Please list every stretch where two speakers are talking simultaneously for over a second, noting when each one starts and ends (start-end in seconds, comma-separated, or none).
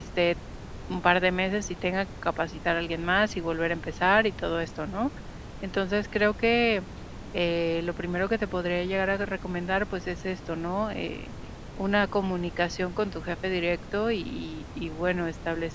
none